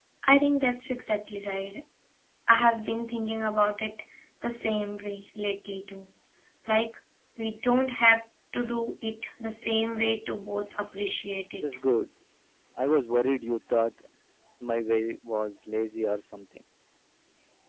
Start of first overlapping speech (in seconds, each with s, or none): none